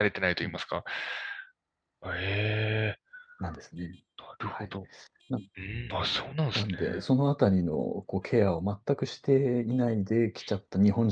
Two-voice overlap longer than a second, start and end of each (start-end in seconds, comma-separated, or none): none